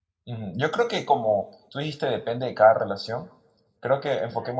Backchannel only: Yes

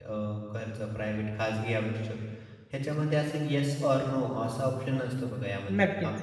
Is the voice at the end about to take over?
No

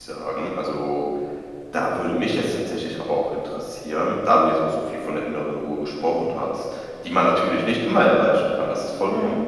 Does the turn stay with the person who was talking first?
Yes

